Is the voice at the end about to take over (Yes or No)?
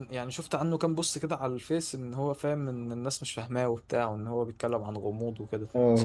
Yes